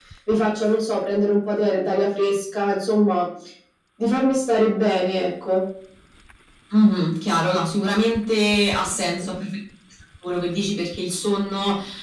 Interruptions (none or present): none